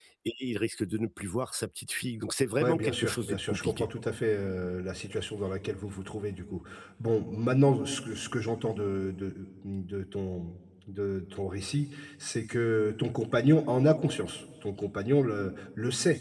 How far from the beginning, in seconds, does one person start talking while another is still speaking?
3 s

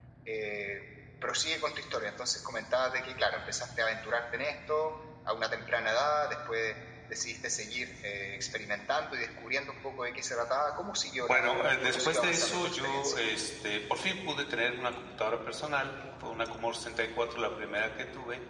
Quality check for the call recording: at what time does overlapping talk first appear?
11 s

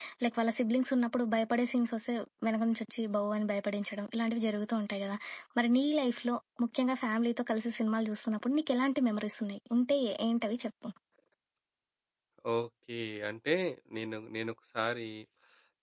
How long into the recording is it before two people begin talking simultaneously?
none

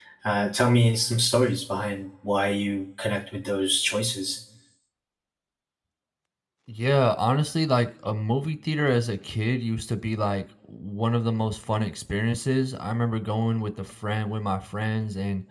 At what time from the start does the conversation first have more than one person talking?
none

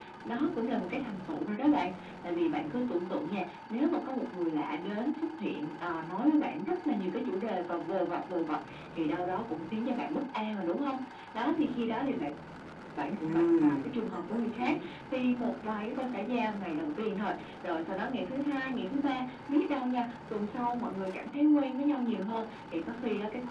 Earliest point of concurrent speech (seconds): 13 s

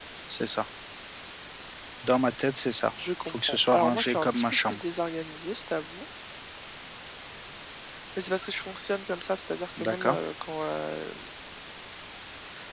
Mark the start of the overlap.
3 s

